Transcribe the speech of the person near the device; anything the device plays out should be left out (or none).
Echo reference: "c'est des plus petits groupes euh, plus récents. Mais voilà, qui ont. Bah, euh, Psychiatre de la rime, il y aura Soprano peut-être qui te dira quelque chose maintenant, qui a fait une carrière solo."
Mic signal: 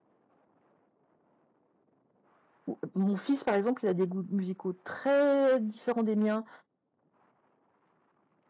ou- euh, mon fils par exemple, il a des goûts musicaux très différents des miens,